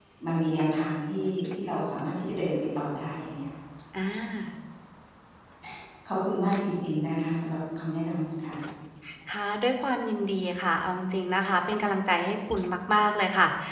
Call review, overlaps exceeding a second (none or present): none